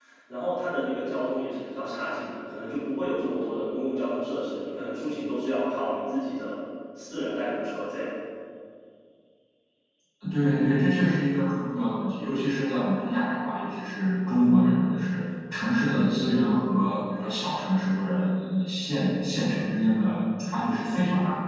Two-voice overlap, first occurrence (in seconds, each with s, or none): none